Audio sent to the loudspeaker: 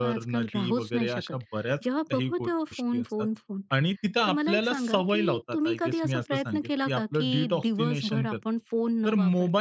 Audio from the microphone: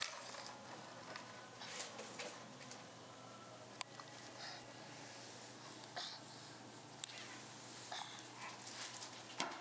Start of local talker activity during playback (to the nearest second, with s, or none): none